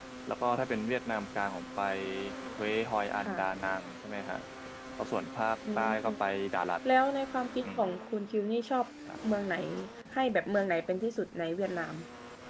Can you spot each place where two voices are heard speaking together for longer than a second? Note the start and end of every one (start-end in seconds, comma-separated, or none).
none